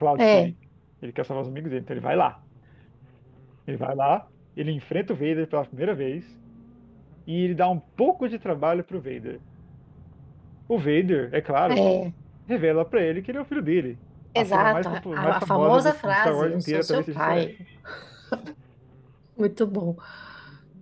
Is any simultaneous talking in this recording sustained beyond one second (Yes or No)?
Yes